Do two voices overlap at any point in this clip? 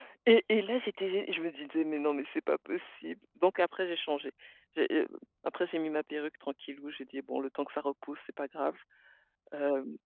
No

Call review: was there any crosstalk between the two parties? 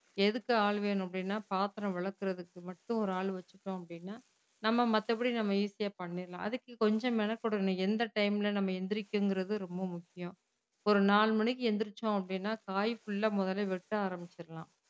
No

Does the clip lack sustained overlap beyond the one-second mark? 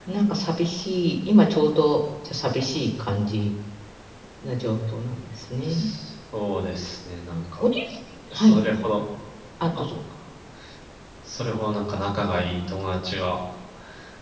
Yes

